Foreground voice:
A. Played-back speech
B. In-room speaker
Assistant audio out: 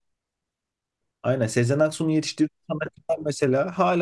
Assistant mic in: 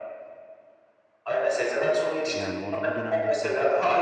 A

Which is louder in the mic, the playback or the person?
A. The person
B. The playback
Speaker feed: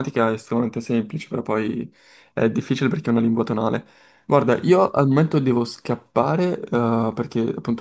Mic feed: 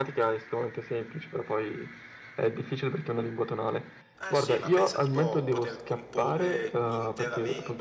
B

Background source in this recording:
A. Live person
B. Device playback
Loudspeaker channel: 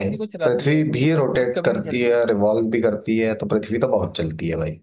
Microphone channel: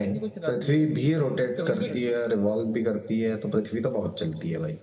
A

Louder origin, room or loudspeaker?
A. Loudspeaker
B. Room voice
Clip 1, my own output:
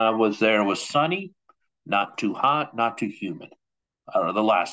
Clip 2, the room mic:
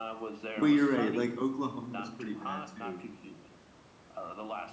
B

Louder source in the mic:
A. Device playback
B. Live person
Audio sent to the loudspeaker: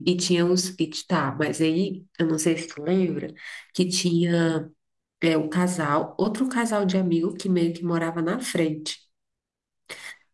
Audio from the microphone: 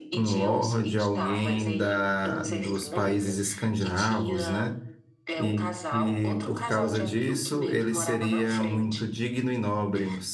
B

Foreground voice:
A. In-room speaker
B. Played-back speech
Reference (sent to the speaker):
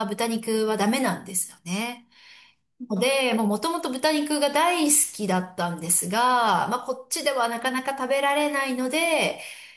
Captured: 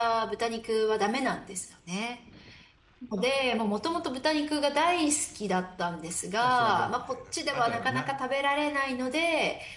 B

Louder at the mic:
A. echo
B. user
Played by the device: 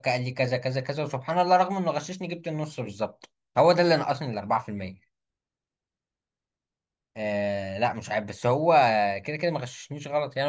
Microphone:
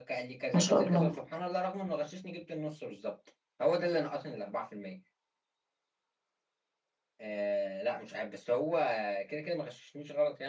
B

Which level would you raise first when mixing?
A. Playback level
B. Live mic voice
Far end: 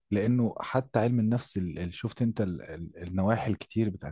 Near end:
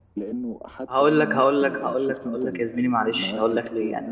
A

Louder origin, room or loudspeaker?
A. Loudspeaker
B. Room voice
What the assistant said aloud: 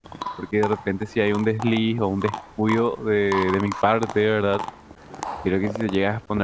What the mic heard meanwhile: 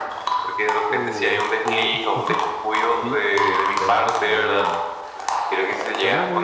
A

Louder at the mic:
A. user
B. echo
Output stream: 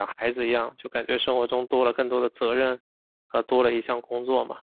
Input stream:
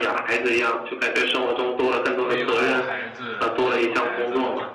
B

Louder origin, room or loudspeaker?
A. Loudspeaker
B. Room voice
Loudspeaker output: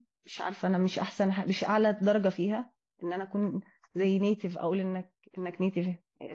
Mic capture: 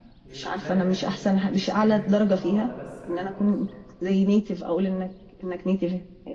A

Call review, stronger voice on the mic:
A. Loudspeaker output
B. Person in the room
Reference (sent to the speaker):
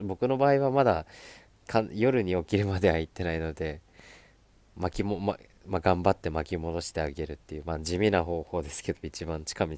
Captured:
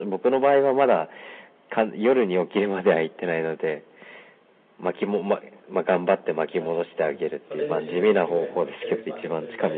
A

